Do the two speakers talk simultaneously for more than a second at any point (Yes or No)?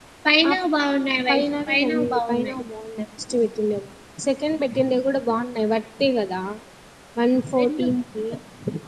Yes